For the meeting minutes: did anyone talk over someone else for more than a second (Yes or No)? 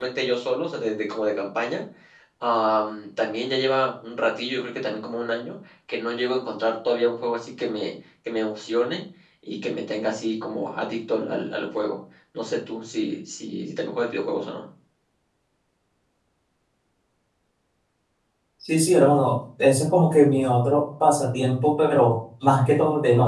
No